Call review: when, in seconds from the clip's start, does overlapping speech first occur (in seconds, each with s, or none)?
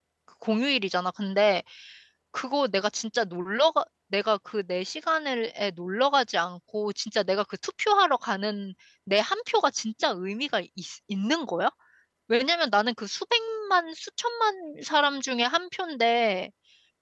none